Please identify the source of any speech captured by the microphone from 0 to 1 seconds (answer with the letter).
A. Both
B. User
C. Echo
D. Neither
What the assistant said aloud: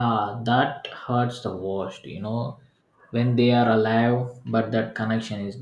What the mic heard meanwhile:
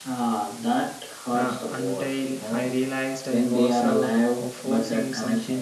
C